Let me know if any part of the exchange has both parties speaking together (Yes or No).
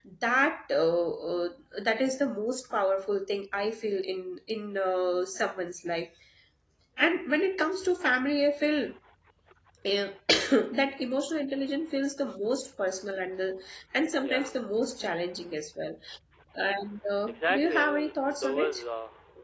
Yes